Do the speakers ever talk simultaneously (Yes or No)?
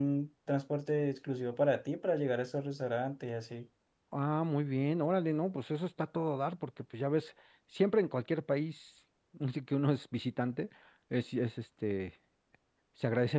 No